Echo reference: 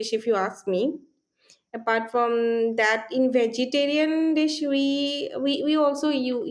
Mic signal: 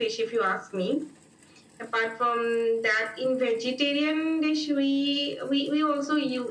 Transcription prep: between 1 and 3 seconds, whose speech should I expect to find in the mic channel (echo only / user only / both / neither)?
echo only